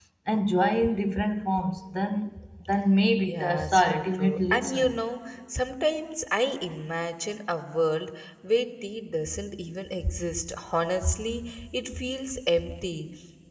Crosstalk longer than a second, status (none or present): present